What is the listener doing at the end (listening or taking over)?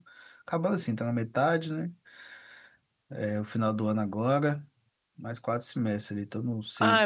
taking over